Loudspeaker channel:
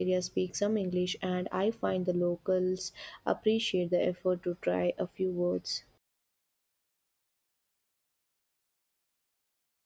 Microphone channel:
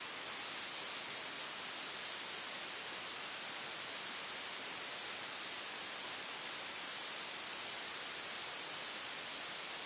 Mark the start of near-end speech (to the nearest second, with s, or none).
none